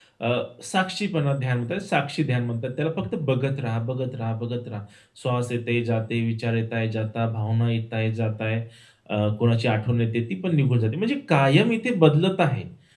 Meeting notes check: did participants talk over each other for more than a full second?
No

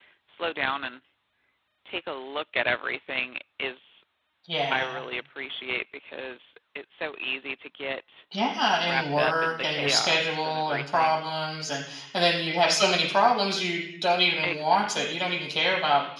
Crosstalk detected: Yes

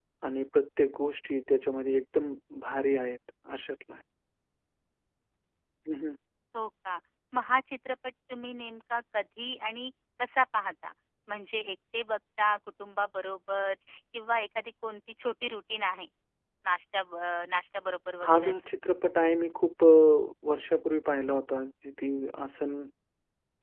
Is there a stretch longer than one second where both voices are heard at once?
No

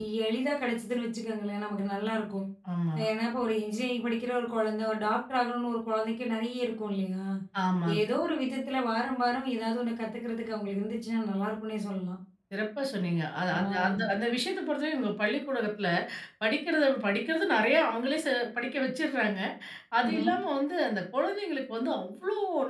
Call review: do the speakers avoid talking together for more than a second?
Yes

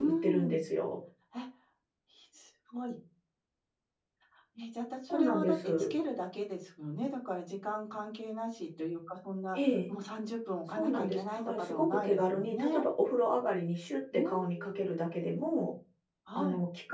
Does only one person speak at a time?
No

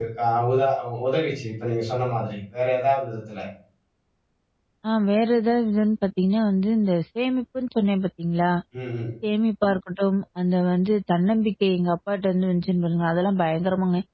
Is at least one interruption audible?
No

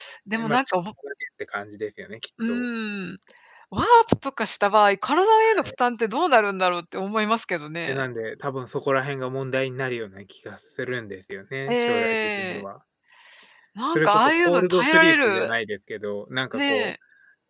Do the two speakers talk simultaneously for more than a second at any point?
Yes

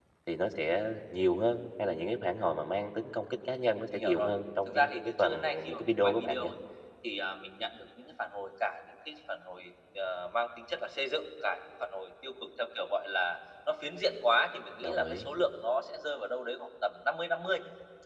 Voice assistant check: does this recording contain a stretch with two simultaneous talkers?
Yes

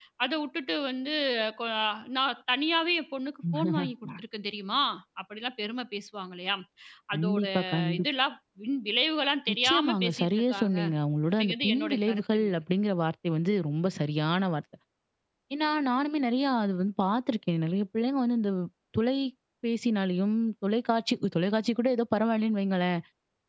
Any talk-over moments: Yes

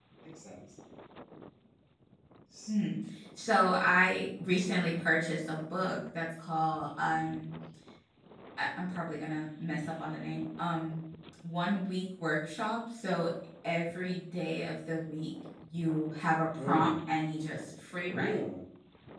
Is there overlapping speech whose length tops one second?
No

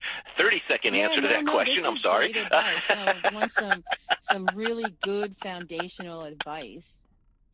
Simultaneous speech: Yes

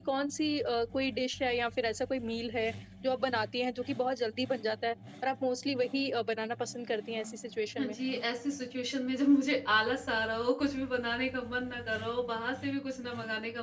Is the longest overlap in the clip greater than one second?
No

